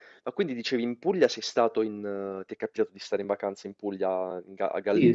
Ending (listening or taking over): taking over